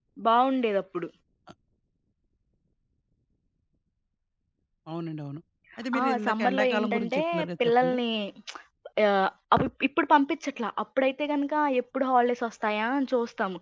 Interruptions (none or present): present